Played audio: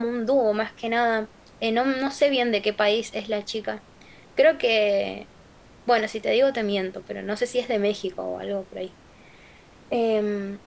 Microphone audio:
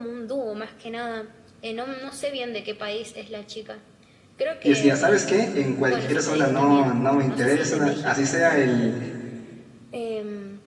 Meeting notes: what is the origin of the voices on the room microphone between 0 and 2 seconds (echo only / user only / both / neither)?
echo only